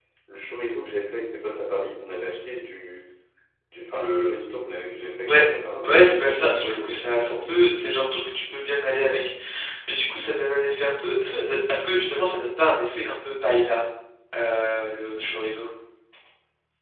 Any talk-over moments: Yes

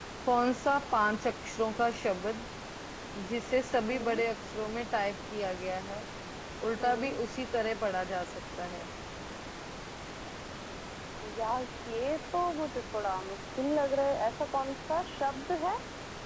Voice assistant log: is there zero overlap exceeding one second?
Yes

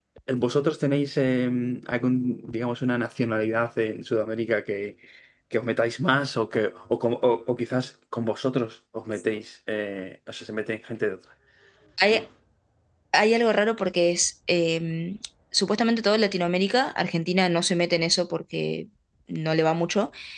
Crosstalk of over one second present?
No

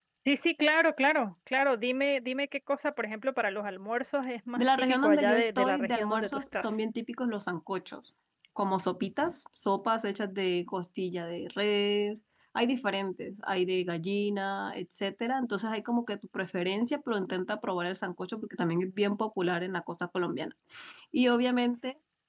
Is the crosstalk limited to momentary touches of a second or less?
No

